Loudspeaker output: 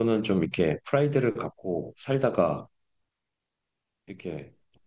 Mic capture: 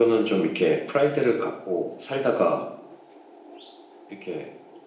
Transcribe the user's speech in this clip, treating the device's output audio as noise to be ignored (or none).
none